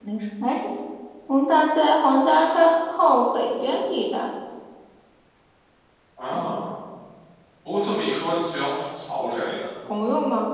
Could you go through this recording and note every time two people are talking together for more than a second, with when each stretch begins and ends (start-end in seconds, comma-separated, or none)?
none